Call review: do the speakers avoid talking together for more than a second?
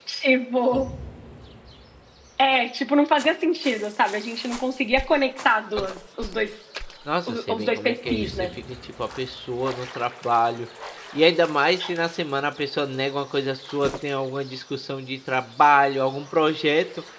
No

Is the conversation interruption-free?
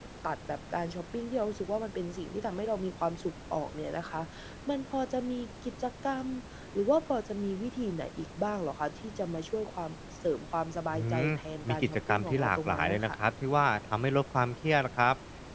No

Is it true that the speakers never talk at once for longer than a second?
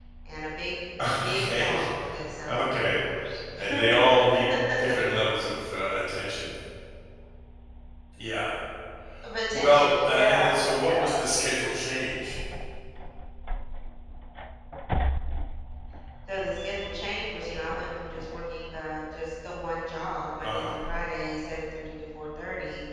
No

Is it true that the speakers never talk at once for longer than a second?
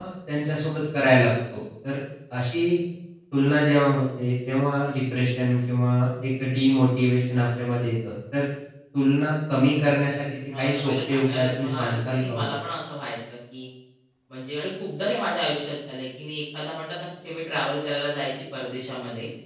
No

